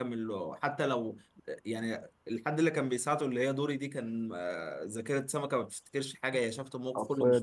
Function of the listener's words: listening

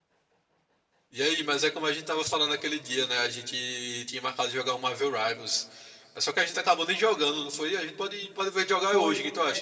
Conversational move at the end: taking over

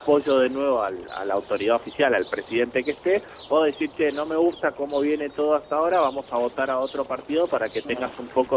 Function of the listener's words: listening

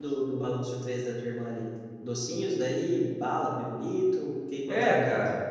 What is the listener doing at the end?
taking over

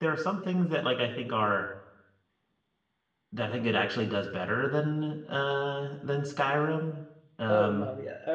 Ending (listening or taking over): taking over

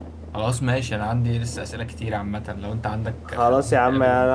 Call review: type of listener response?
taking over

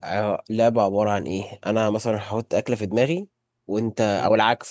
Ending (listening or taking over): listening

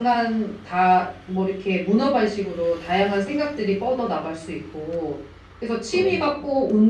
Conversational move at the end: listening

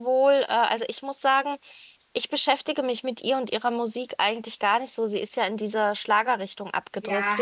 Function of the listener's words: taking over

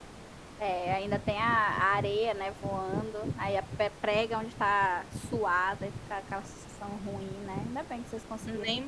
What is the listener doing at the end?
taking over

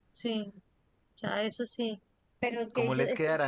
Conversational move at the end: taking over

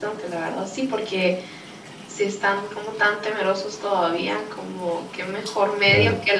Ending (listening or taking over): listening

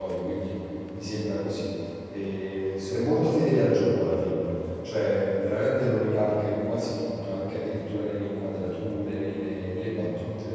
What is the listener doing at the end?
listening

